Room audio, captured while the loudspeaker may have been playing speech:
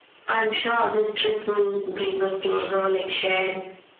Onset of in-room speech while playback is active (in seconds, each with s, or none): none